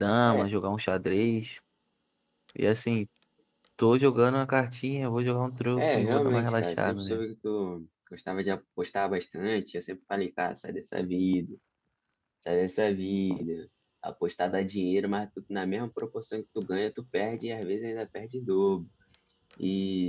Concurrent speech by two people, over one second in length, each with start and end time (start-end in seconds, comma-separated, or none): 5.8-7.2